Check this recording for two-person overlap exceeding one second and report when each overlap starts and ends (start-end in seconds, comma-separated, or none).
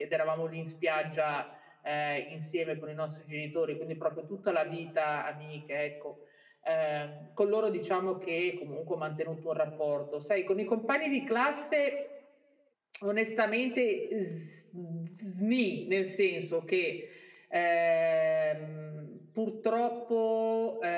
none